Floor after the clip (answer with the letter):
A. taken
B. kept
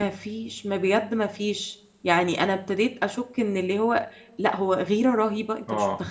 A